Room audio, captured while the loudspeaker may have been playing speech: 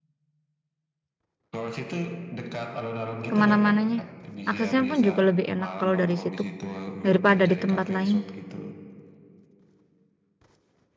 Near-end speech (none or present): present